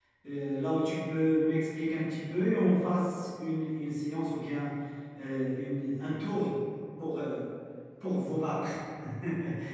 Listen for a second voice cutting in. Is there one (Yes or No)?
No